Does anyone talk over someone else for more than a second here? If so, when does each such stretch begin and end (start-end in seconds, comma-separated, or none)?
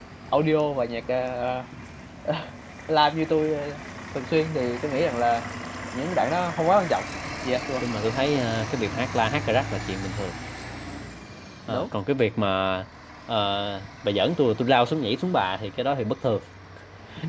none